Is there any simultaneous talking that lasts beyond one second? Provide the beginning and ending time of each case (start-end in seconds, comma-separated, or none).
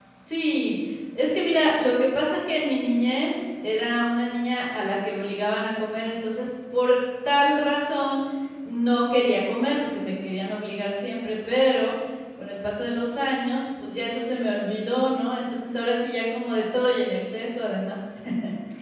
none